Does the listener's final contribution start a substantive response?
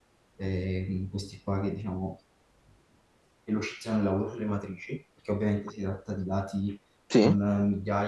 No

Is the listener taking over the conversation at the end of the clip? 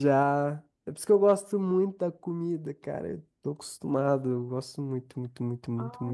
Yes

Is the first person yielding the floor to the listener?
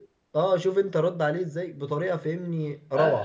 Yes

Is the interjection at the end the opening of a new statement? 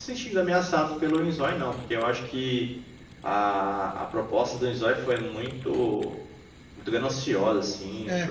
Yes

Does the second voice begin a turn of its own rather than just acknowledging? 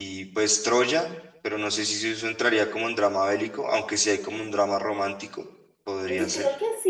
Yes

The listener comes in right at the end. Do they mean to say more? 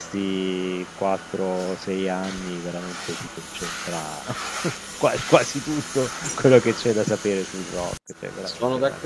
Yes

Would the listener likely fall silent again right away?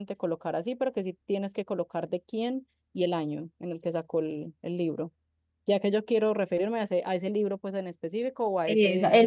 No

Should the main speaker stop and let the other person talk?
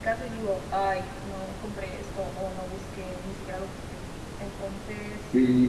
Yes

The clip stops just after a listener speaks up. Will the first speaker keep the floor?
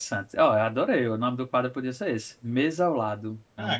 No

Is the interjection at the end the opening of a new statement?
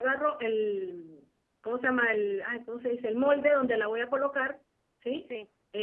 No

